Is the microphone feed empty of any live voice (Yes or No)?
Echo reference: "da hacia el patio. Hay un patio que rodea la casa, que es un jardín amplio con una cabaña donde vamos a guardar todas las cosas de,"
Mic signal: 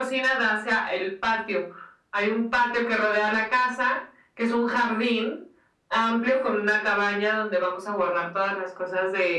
Yes